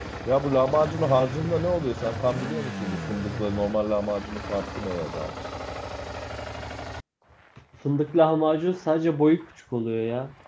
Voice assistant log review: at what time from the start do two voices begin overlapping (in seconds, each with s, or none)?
none